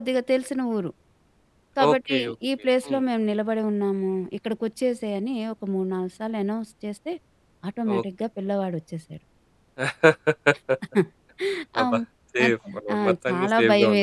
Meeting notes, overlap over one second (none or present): present